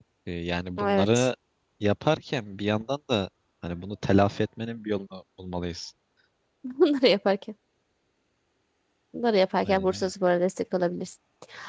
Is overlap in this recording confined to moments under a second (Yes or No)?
Yes